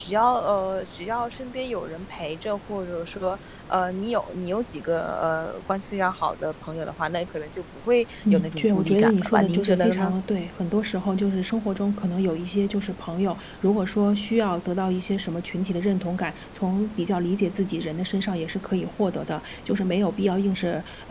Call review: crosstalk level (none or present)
present